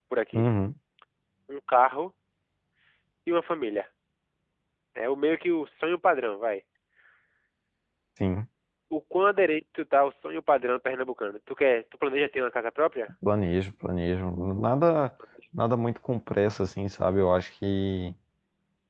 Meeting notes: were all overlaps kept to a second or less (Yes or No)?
Yes